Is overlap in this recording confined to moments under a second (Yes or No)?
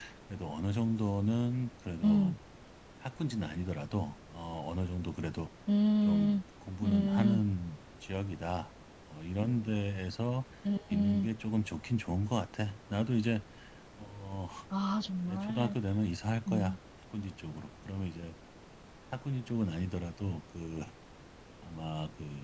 Yes